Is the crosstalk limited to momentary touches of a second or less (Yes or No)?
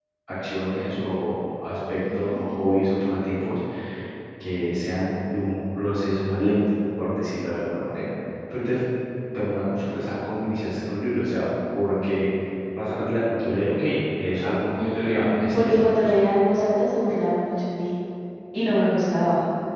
No